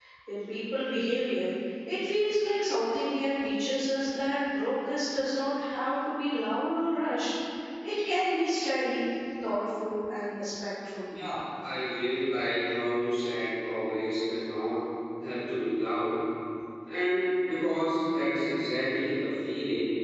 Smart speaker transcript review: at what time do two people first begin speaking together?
none

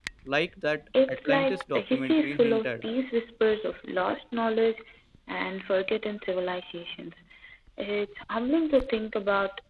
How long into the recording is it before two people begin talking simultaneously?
1 s

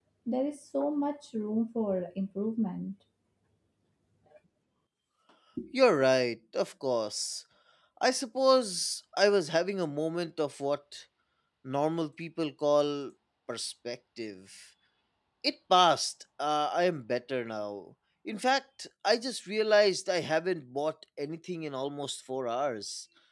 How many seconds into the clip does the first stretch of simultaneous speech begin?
none

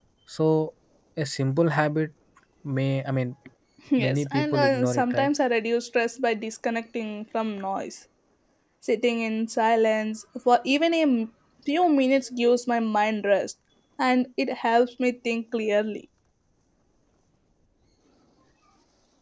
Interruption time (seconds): 4 s

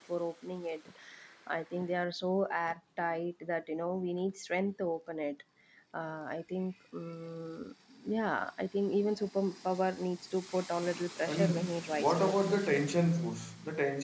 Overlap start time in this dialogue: 11 s

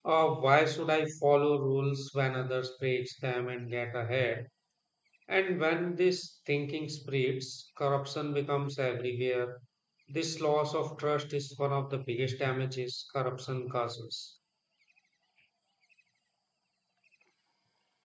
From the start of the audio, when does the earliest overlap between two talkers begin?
none

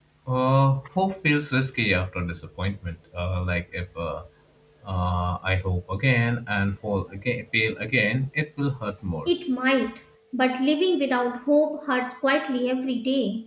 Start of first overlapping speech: none

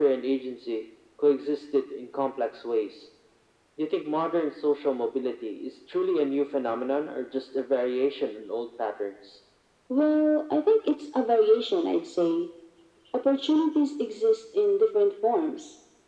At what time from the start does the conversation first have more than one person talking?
none

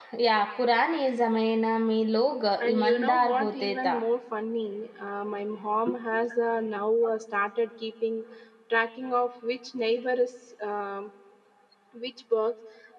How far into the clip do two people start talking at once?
3 s

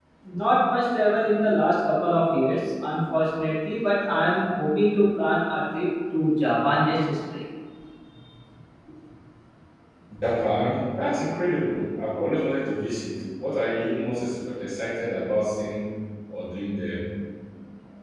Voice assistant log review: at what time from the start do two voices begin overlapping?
none

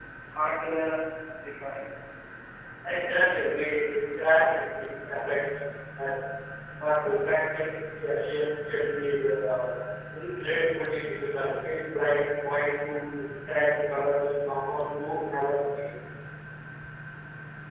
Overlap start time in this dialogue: none

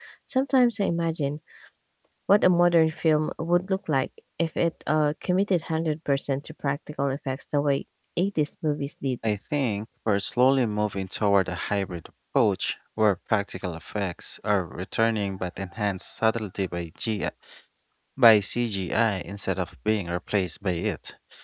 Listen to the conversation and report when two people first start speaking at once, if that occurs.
none

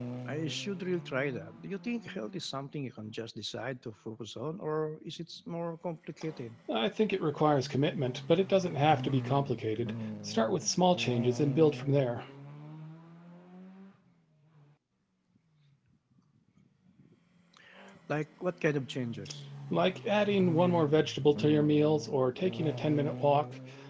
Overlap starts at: none

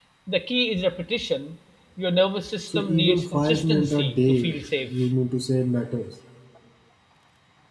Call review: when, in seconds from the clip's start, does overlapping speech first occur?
3 s

